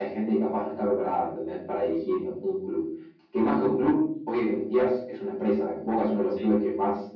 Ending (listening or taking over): listening